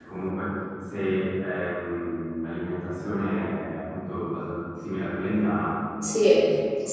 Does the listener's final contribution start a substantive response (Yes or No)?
Yes